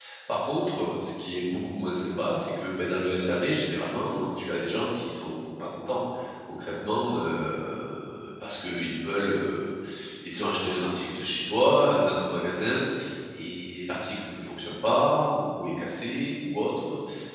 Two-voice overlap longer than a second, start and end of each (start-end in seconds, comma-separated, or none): none